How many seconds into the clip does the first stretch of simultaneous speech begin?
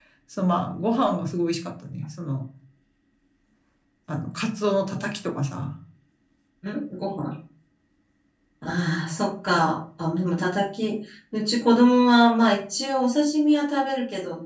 none

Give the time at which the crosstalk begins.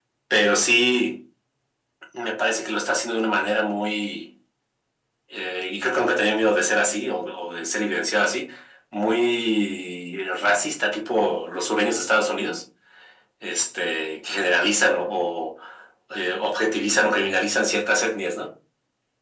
none

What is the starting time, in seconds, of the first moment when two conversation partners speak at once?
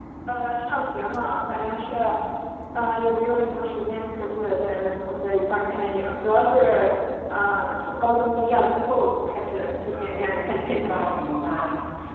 9.8 s

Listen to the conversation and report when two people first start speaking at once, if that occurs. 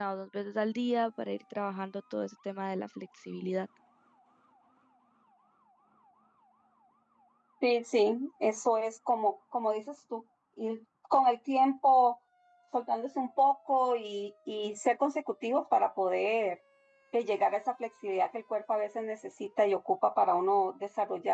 none

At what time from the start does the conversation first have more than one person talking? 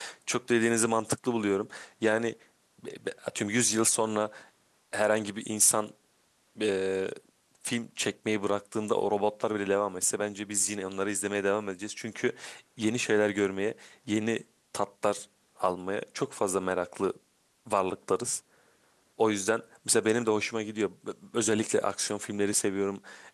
none

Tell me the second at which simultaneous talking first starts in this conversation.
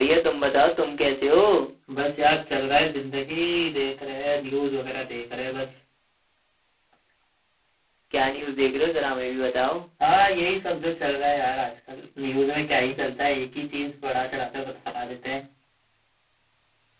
none

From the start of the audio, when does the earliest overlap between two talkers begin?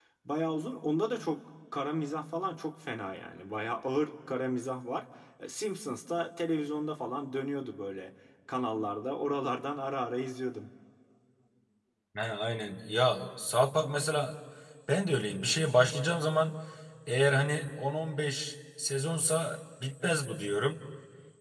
none

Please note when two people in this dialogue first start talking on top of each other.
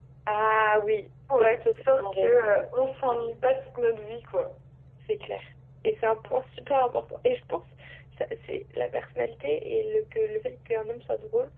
1.3 s

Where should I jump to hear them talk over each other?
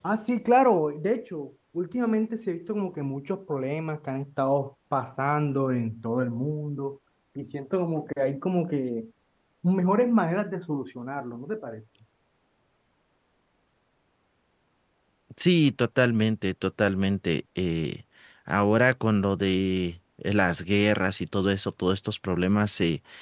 none

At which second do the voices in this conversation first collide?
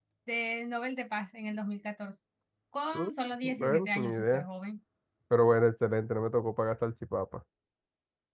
2.9 s

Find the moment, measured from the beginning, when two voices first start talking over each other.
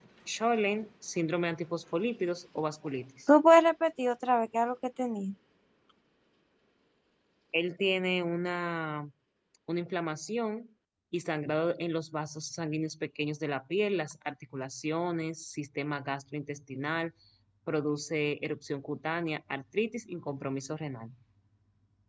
none

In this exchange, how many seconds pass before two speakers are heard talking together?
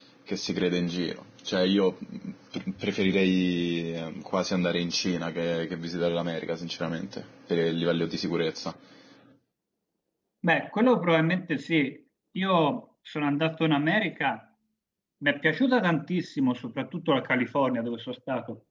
none

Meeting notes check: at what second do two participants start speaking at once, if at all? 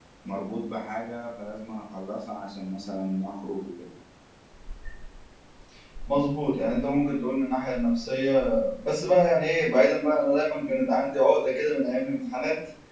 none

